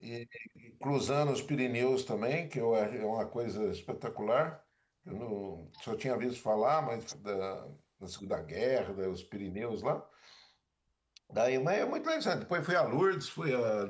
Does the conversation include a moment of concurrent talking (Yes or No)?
No